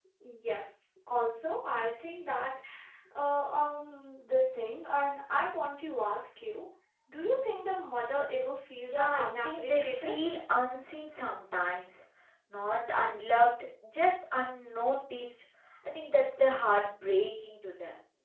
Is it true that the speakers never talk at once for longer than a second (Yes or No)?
No